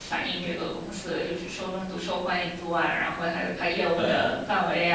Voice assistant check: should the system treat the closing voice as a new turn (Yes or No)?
No